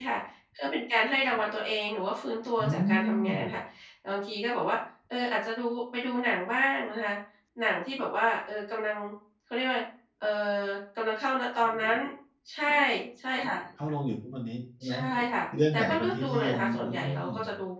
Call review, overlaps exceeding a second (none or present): present